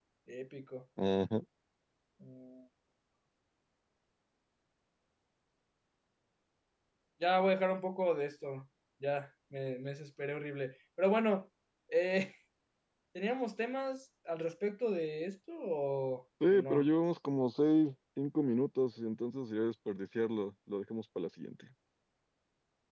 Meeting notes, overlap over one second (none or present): none